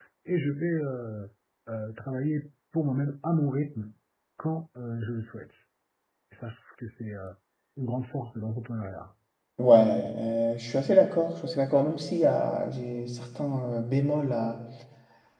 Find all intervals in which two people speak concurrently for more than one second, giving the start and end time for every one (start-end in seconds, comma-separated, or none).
none